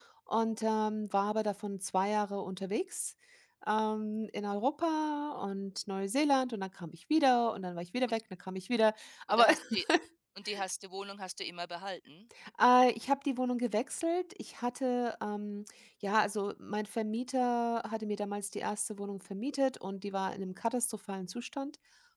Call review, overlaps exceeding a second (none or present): none